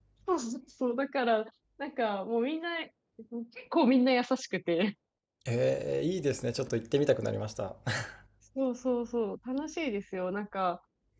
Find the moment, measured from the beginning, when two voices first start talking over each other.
none

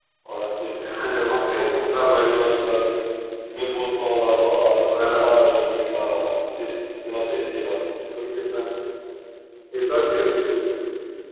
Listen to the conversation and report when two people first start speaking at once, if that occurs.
1.0 s

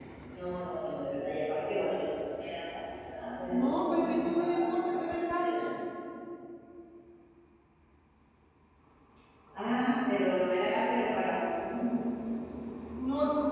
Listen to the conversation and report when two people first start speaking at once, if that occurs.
3.5 s

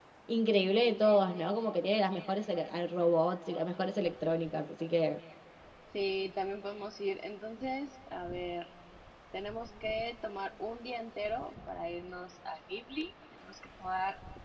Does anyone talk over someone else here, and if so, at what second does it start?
none

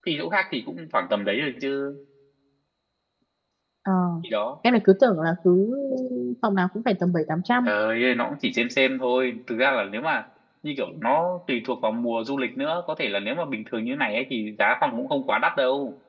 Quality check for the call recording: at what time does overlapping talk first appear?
none

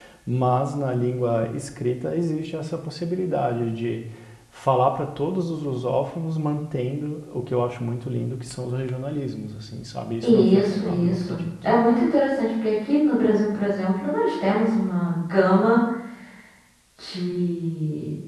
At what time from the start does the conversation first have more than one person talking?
10.2 s

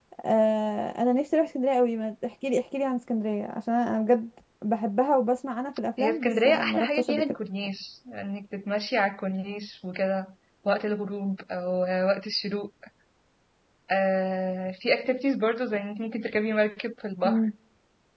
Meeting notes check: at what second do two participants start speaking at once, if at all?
6.0 s

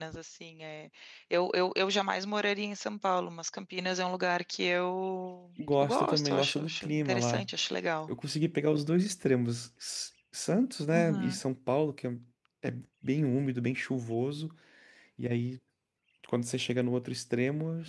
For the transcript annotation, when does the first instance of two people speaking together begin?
5.7 s

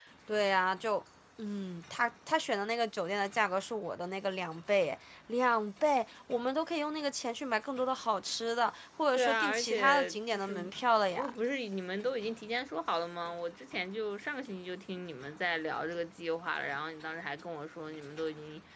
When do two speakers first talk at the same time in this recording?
9.1 s

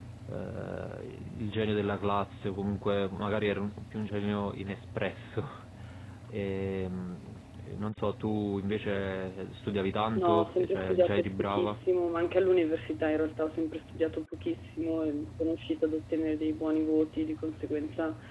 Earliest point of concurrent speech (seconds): 10.2 s

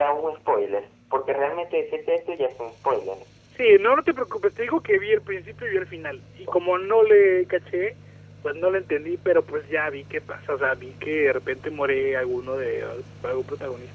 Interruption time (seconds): none

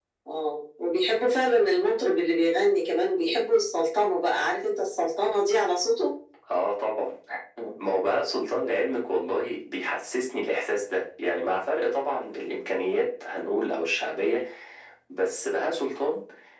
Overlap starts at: none

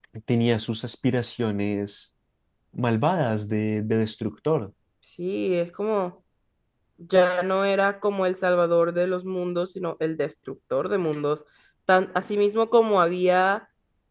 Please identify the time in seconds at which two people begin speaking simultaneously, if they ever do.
none

